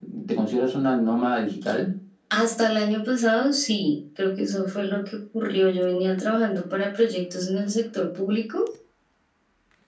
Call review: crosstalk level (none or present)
none